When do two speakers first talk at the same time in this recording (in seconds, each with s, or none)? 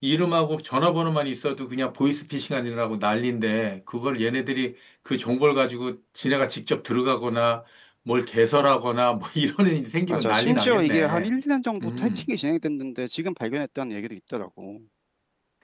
10.1 s